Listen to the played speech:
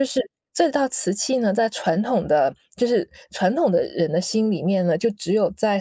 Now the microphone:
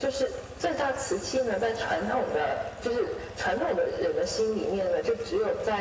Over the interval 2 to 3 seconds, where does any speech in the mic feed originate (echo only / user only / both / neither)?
echo only